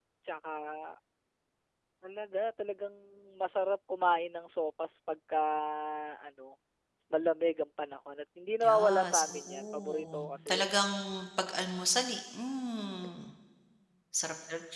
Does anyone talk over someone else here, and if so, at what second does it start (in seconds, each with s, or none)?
8.6 s